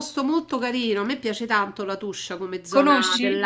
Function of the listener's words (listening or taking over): listening